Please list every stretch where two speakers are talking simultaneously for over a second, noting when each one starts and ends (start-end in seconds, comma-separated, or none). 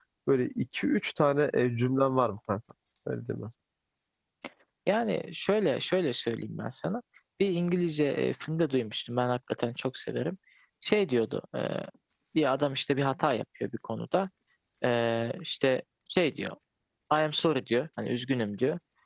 none